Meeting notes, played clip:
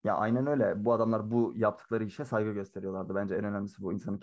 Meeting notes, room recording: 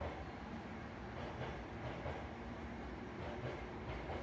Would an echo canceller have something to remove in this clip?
No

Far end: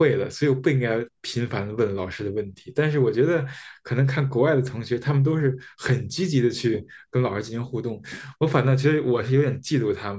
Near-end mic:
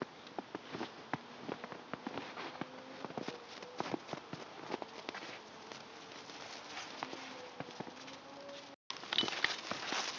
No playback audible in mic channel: Yes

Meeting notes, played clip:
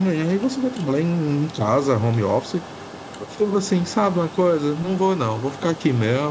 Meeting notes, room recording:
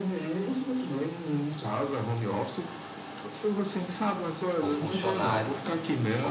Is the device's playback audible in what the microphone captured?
Yes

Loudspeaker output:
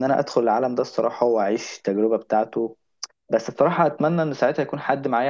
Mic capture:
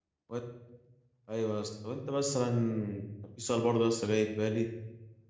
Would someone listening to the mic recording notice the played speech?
No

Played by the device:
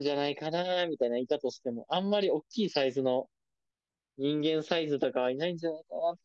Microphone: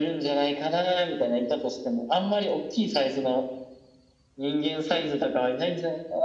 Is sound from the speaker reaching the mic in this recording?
Yes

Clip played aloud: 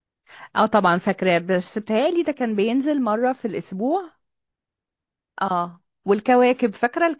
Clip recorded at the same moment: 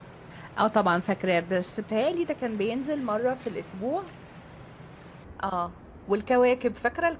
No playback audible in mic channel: No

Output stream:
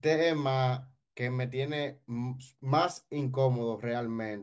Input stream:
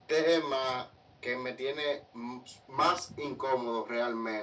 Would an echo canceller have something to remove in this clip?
Yes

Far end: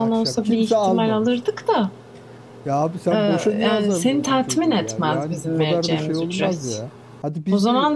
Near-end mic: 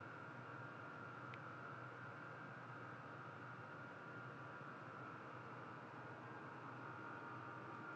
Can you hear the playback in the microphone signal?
No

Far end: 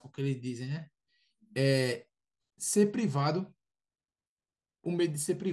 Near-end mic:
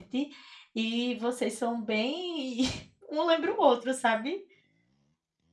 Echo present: No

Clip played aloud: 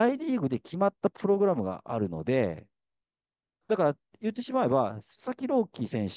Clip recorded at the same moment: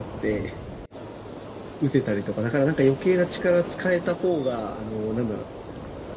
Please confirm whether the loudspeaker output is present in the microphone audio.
No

